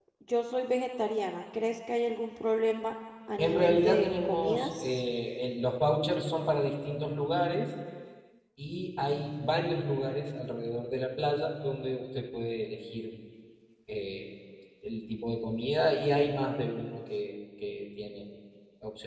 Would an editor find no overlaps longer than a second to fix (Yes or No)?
No